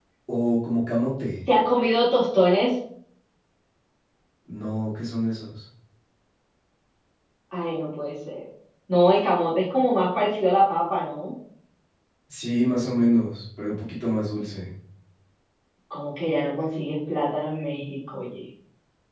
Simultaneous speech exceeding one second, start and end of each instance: none

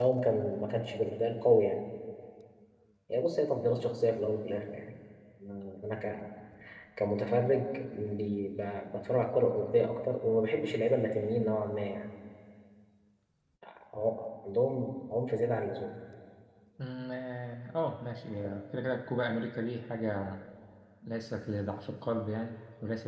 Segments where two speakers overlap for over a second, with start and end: none

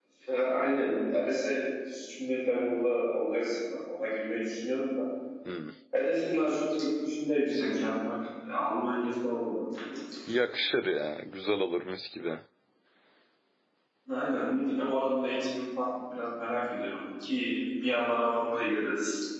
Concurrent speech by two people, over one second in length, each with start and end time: none

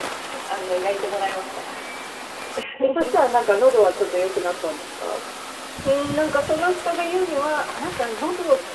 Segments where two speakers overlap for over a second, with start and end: none

